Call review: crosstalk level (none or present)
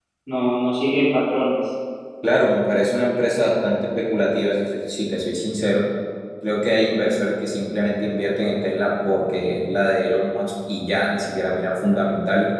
none